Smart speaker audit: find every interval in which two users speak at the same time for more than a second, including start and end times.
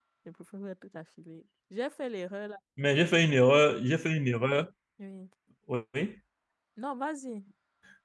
none

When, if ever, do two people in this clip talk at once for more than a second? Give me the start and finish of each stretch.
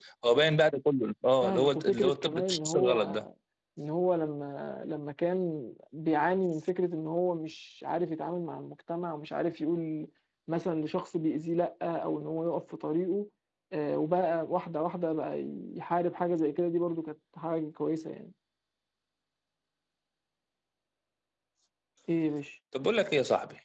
1.4-3.2

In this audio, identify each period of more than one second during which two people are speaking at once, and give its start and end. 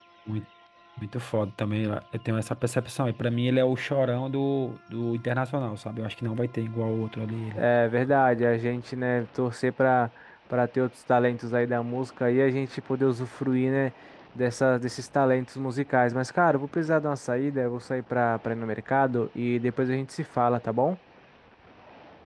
none

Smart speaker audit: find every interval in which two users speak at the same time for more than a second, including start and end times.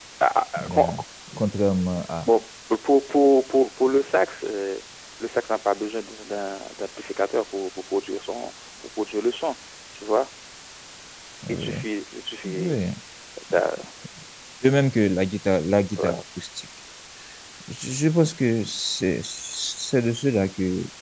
none

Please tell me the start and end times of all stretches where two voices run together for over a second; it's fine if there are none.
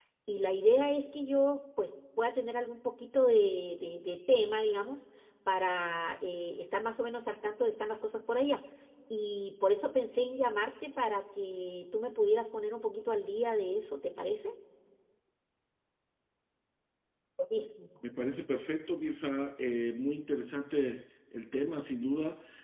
none

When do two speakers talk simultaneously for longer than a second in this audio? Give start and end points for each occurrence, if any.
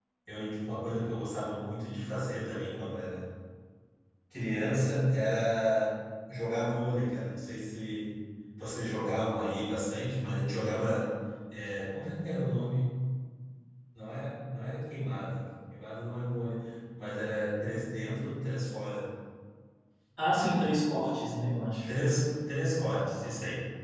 none

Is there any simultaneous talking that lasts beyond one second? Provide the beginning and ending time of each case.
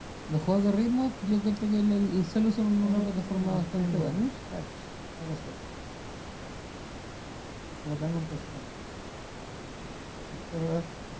2.8-4.2

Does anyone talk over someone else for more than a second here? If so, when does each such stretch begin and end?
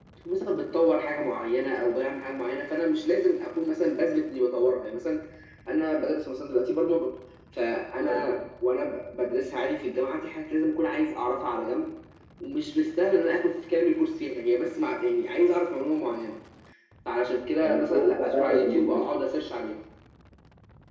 17.6-19.0

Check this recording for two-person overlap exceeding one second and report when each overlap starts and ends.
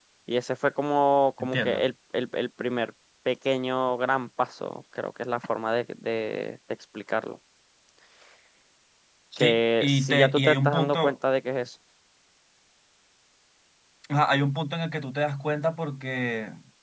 9.4-11.1

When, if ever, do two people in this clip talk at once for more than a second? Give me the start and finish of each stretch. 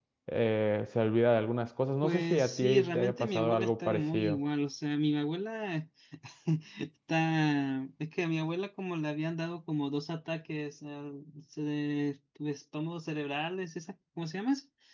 2.0-4.4

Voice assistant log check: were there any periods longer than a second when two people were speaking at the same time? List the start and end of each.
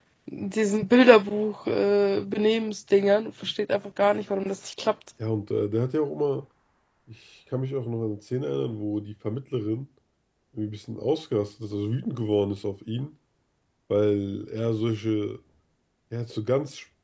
none

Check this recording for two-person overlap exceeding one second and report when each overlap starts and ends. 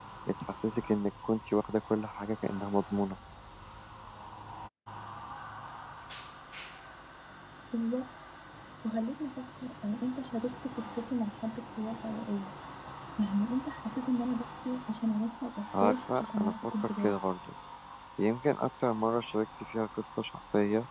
15.8-17.1

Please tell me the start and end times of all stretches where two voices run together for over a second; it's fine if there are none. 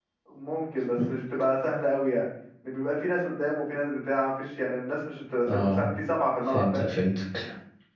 none

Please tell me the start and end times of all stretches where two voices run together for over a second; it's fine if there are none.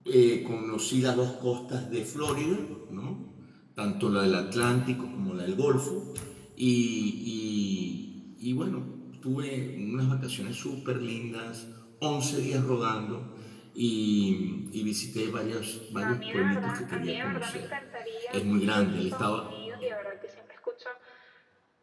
15.9-17.7, 18.3-19.5

